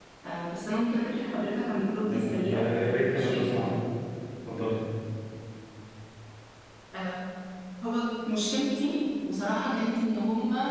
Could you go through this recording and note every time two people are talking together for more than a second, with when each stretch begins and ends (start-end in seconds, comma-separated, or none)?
2.1-3.6